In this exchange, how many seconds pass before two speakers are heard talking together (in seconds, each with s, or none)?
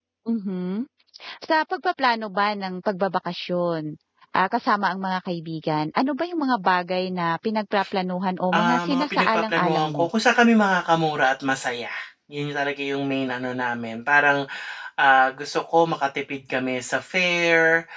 8.5 s